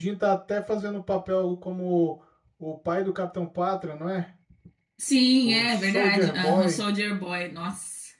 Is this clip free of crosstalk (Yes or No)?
No